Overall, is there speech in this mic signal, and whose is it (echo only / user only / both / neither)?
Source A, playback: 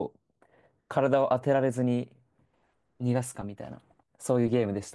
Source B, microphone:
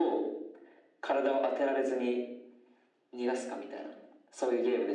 echo only